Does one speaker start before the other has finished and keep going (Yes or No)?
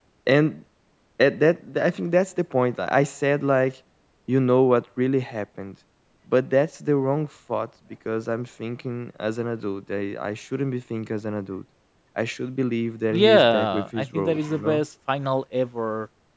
Yes